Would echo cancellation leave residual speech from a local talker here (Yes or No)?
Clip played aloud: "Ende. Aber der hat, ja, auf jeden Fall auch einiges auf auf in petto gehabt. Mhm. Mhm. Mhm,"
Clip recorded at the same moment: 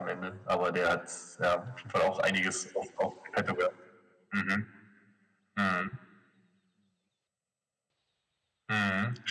No